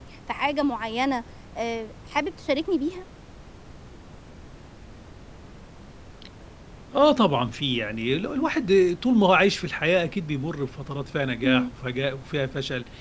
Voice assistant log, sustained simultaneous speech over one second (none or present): none